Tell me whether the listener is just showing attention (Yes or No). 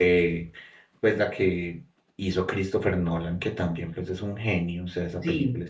No